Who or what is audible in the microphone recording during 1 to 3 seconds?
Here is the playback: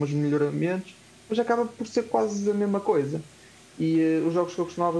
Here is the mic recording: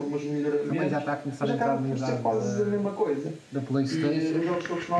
both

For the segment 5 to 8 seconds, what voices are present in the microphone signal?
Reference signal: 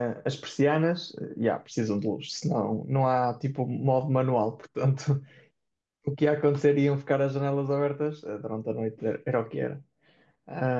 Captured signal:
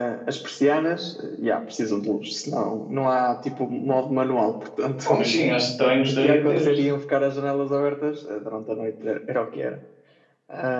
both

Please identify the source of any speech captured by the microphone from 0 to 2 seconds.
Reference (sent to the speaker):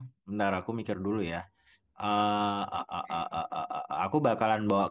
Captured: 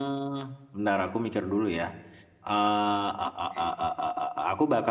echo only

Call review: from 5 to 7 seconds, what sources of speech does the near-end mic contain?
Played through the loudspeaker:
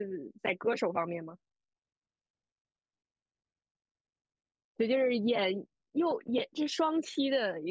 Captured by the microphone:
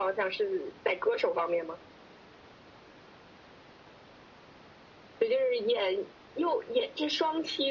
echo only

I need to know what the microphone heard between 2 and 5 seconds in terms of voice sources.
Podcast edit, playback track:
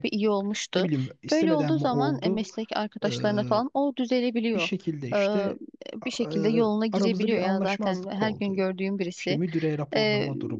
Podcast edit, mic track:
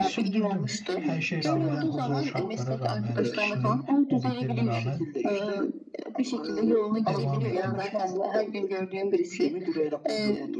both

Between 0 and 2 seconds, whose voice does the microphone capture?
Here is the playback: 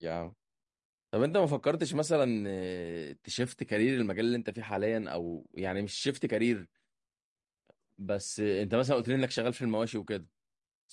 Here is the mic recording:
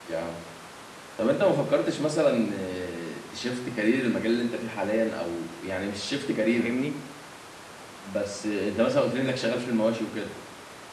echo only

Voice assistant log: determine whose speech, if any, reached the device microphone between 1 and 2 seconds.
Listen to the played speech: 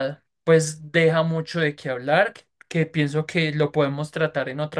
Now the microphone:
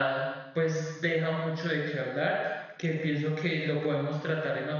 echo only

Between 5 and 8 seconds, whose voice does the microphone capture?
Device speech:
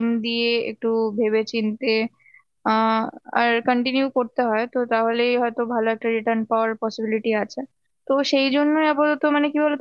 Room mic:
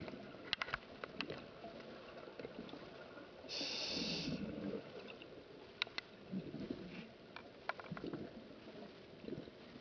neither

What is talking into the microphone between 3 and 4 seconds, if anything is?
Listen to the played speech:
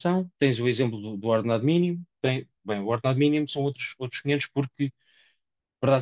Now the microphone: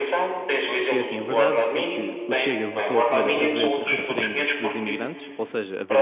both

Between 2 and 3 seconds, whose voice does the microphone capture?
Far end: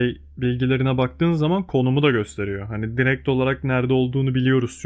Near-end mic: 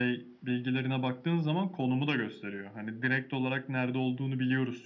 echo only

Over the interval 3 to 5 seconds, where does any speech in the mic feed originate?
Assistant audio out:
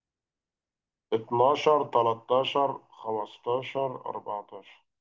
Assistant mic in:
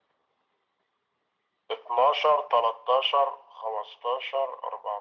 echo only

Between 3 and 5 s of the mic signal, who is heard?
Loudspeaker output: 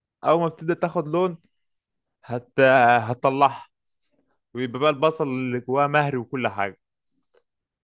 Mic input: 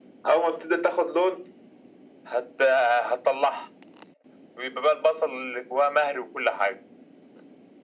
echo only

